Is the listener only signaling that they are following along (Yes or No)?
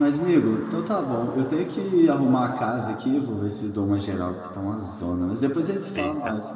No